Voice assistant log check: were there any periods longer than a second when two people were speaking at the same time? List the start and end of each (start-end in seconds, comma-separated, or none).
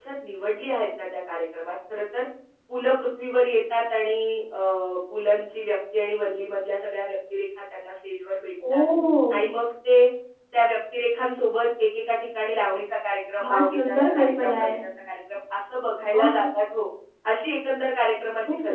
13.4-14.7